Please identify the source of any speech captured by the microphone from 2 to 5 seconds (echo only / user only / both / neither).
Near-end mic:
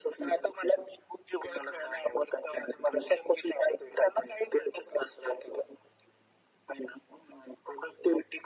echo only